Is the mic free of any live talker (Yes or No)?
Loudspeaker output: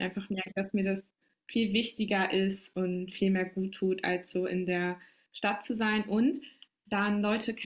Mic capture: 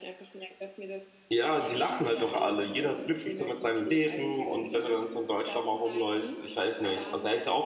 No